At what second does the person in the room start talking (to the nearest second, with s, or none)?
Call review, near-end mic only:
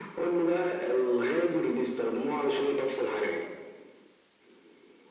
none